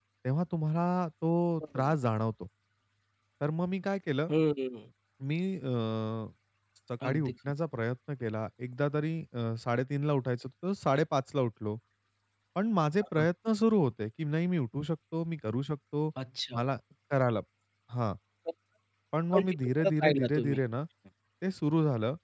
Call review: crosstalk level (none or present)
present